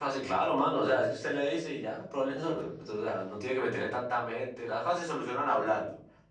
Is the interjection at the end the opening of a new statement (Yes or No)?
No